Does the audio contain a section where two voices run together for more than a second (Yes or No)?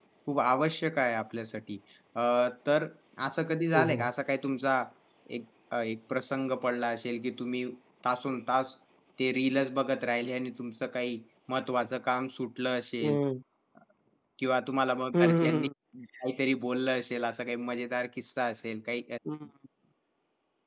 No